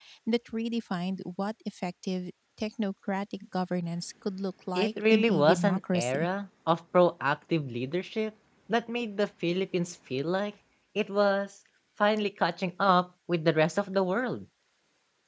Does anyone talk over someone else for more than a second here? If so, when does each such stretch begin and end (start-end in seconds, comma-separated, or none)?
4.8-6.3